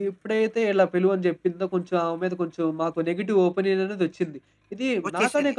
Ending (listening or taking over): listening